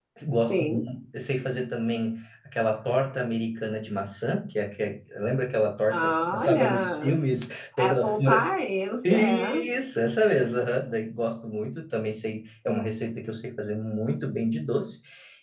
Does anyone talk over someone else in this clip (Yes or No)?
Yes